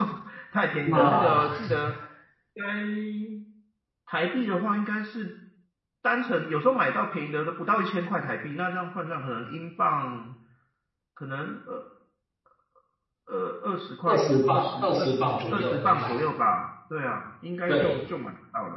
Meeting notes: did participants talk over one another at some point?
Yes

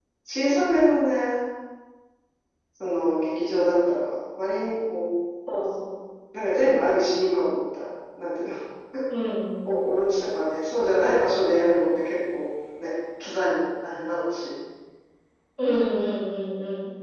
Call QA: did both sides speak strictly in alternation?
Yes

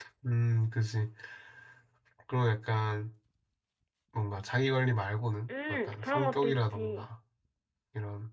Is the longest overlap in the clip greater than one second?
Yes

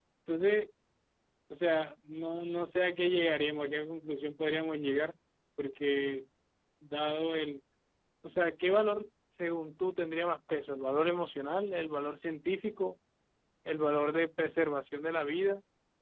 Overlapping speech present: No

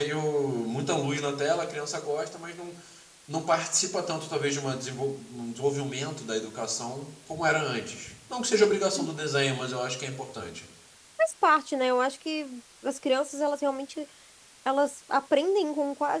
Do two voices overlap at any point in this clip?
No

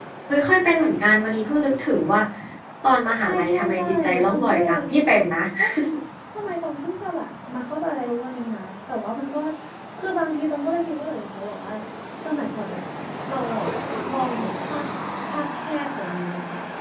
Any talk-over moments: Yes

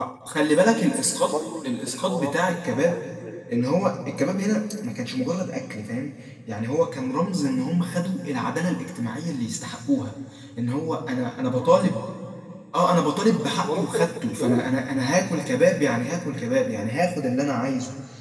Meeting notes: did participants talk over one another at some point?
Yes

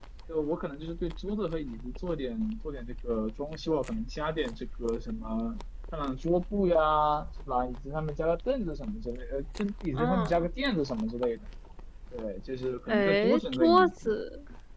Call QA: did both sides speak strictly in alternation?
No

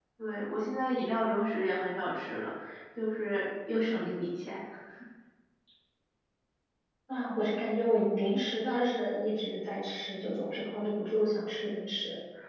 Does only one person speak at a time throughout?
Yes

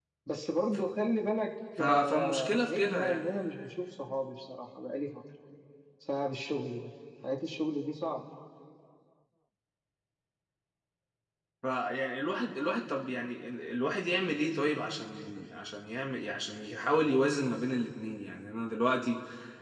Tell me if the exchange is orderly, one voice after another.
No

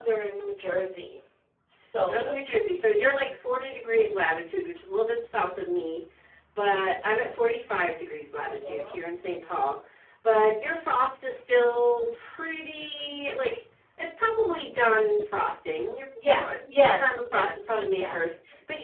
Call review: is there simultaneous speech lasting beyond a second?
Yes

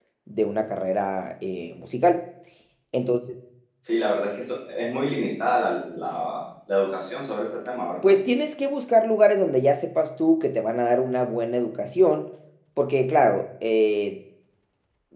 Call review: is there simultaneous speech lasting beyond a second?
No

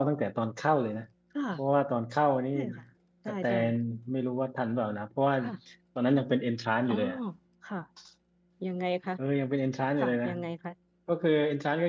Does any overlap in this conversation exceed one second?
No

